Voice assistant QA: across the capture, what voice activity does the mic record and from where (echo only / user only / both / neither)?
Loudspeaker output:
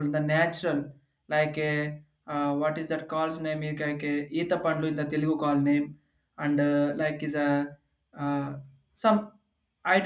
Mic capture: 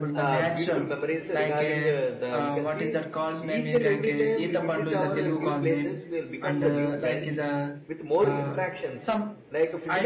both